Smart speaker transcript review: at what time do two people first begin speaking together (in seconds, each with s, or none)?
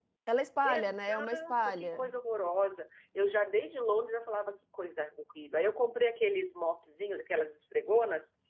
0.6 s